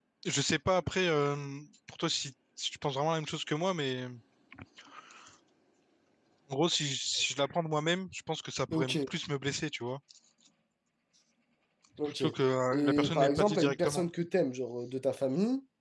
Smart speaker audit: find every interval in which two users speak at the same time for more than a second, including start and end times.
12.7-14.0

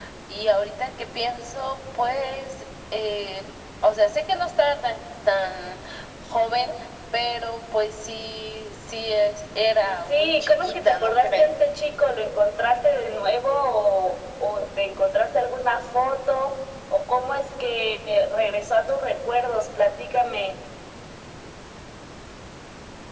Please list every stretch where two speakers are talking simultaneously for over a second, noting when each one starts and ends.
10.1-11.5

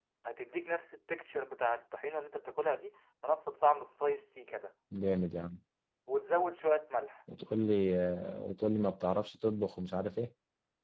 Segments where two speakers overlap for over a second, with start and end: none

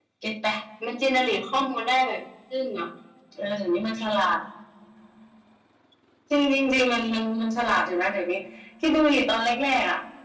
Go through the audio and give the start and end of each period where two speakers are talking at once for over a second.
none

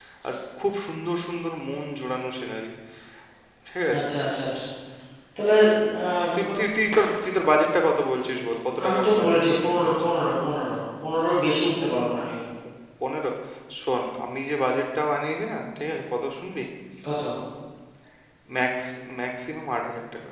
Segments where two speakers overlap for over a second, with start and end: 8.8-10.1

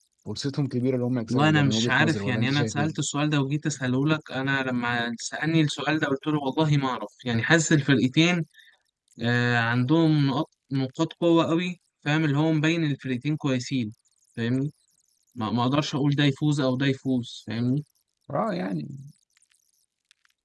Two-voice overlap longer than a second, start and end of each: 1.3-3.0

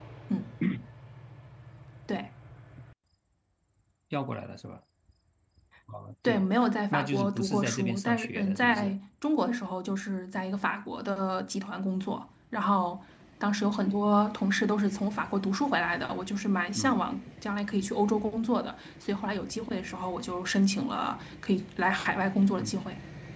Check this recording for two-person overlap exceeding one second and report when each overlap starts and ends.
6.9-9.0

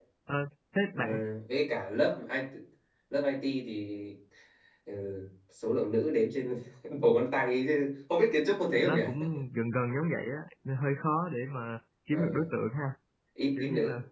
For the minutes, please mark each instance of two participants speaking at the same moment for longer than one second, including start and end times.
none

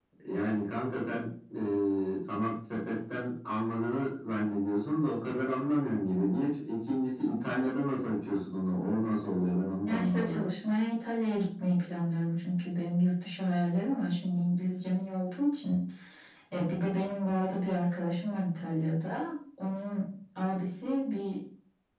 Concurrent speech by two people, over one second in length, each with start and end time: none

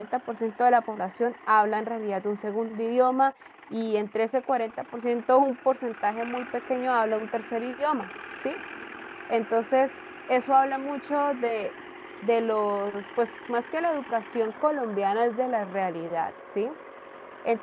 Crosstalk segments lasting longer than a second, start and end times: none

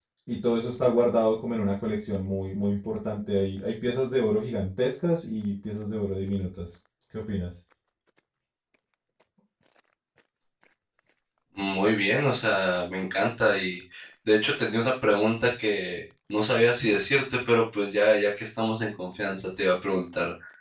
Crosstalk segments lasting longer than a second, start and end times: none

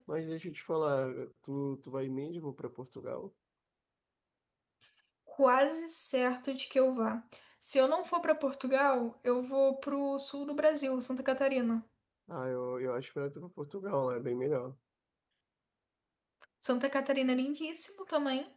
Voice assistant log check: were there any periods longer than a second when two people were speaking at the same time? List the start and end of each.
none

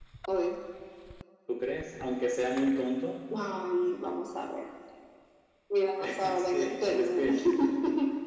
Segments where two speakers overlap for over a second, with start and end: 6.0-7.3

